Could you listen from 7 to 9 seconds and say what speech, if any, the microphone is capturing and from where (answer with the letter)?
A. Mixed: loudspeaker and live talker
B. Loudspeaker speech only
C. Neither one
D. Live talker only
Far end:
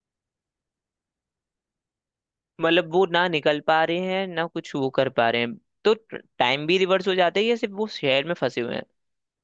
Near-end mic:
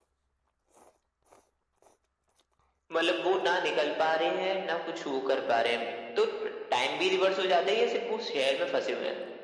B